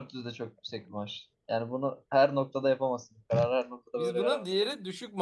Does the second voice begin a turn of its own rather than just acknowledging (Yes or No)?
Yes